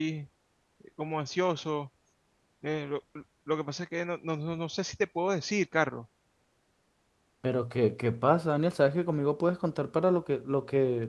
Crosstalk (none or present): none